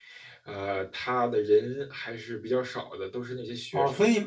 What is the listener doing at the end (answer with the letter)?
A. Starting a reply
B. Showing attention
A